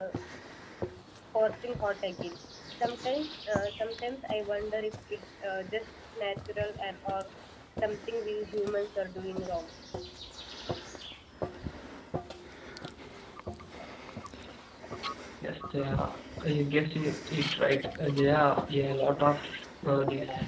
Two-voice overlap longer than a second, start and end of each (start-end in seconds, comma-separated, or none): none